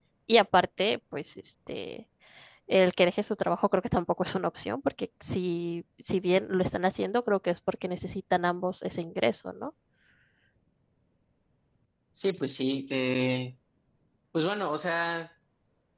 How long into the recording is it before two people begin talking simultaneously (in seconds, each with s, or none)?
none